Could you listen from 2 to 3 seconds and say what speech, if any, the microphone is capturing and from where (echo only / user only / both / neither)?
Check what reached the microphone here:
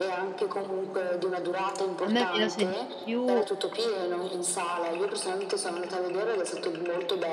both